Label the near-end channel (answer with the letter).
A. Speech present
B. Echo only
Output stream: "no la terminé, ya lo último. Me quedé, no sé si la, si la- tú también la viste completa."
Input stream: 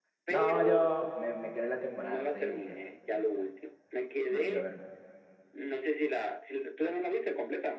A